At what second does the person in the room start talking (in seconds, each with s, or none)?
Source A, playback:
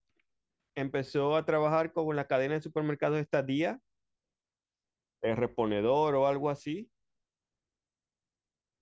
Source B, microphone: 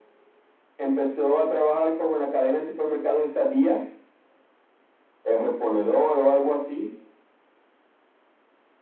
none